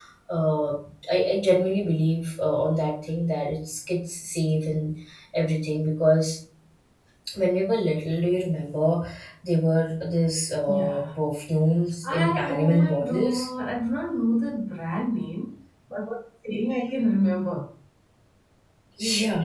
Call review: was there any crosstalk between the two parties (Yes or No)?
Yes